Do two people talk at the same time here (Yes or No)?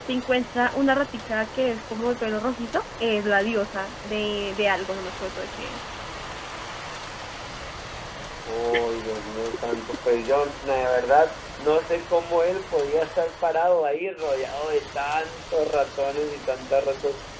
No